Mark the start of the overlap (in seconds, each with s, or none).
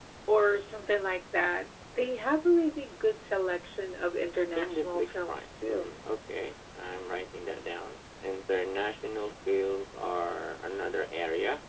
4.6 s